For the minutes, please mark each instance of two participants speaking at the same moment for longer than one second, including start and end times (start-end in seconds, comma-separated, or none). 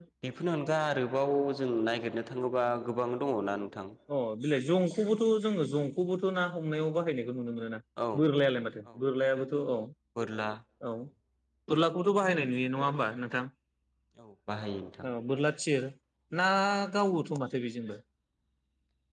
none